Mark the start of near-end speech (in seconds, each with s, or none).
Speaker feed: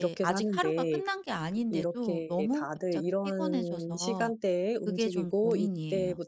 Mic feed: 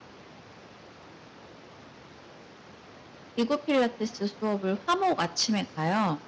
3.3 s